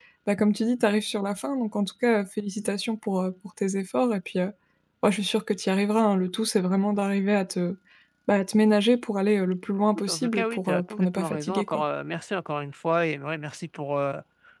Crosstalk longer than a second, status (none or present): present